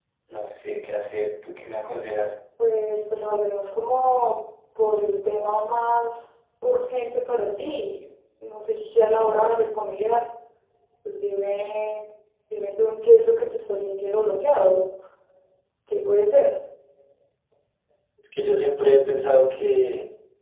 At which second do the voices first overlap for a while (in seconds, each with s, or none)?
none